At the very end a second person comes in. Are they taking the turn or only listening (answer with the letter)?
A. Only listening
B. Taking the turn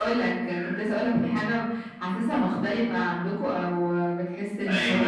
B